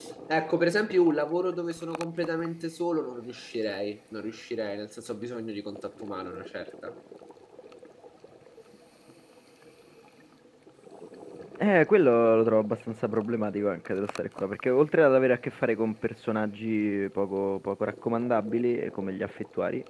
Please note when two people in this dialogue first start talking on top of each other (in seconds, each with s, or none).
none